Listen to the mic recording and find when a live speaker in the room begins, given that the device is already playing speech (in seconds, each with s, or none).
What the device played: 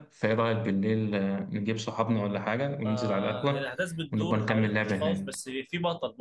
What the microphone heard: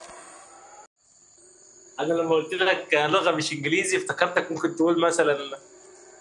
2.0 s